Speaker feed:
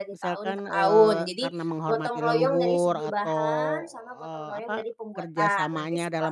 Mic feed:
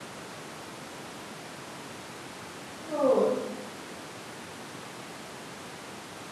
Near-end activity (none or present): present